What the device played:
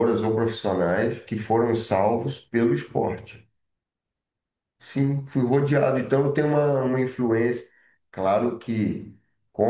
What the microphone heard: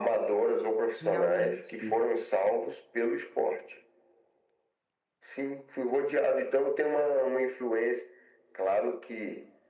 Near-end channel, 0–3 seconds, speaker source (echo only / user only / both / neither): both